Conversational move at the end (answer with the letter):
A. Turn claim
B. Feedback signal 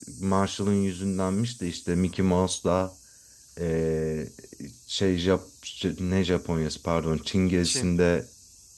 B